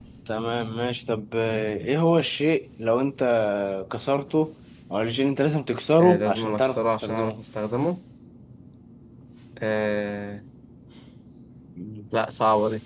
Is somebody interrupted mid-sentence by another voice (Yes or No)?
Yes